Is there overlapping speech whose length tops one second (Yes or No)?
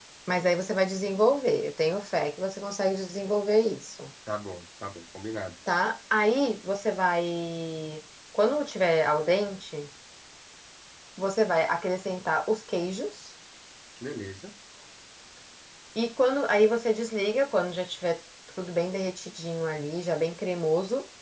No